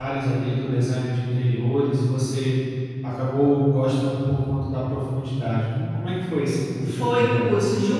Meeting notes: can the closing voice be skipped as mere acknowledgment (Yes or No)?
No